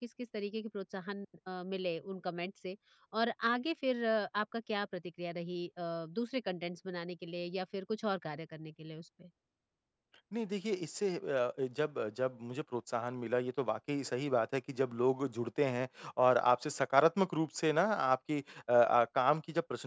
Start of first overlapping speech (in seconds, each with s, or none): none